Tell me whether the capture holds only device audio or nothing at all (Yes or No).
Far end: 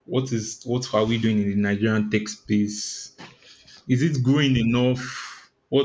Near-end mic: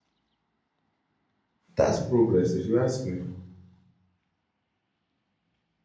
No